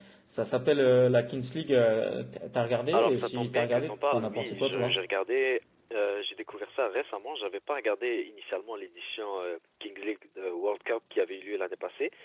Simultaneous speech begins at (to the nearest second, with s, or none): 3 s